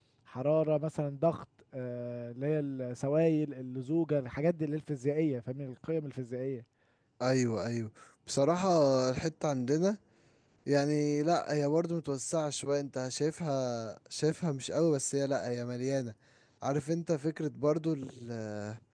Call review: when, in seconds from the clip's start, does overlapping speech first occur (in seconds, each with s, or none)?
none